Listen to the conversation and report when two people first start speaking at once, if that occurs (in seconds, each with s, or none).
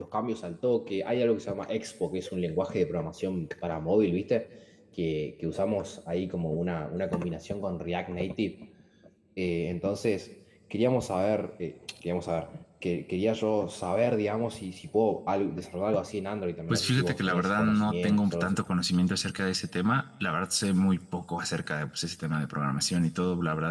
16.7 s